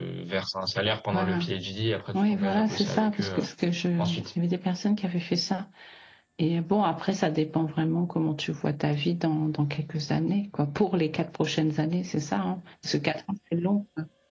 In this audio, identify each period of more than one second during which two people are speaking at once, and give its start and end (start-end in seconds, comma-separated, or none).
2.1-3.4